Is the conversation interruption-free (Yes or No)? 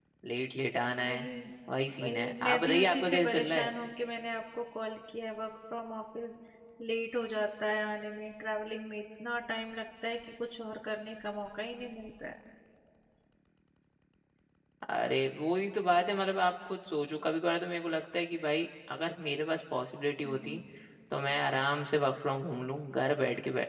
No